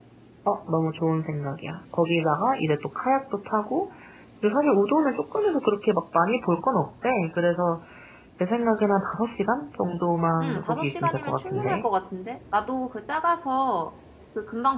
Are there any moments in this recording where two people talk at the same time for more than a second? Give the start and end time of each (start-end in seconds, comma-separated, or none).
10.4-11.9